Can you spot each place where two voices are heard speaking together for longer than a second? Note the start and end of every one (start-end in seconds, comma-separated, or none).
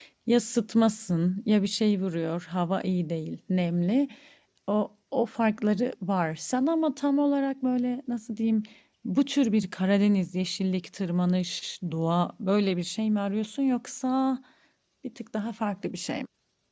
none